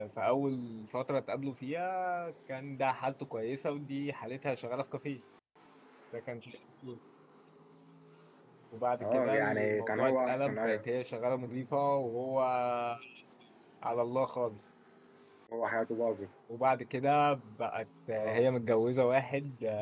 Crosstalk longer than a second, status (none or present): present